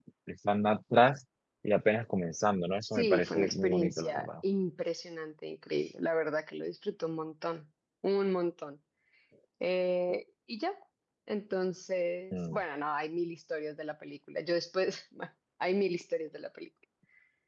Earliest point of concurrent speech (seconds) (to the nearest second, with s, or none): 3 s